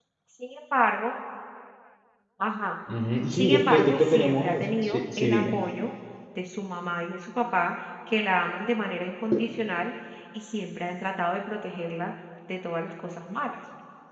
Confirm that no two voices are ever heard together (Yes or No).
No